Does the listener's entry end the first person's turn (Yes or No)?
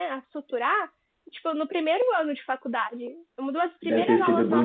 Yes